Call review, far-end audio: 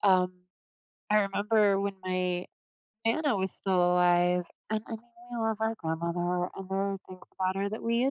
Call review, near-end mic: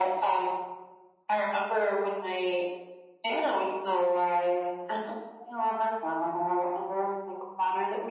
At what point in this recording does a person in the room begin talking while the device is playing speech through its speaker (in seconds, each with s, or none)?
none